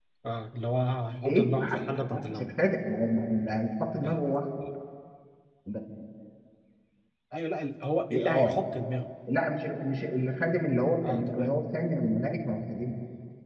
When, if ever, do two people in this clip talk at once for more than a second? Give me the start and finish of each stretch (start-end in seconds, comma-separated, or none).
none